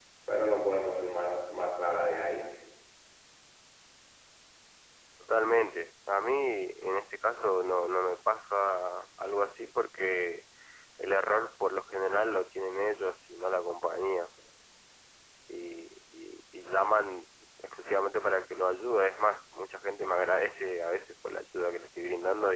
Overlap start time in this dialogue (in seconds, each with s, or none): none